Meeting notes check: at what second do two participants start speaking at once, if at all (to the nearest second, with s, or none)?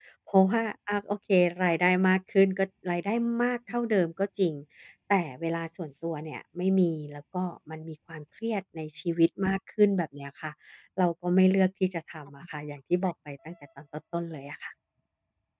none